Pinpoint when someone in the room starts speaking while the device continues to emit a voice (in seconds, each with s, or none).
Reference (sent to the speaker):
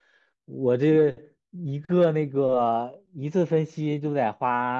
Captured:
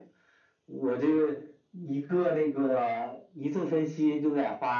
none